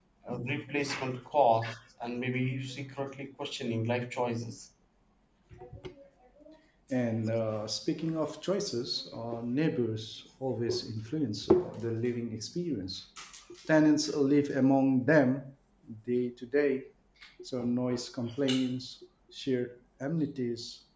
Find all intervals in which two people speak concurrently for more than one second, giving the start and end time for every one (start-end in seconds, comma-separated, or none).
none